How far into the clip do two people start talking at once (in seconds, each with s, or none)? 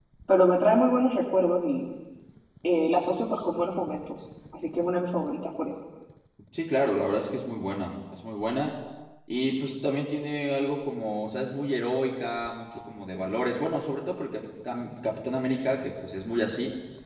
none